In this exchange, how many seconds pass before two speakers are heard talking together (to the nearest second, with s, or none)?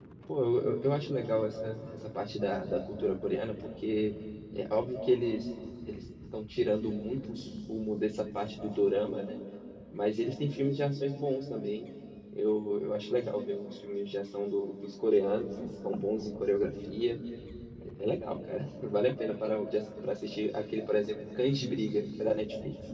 none